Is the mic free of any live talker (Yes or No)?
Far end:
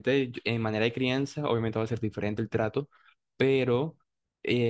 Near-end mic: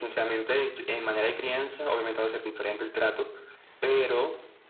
Yes